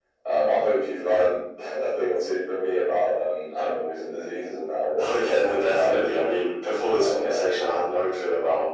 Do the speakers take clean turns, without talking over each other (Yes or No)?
No